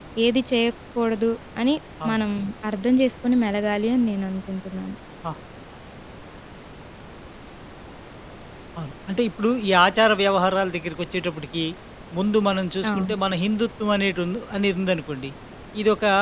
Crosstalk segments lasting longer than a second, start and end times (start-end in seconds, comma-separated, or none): none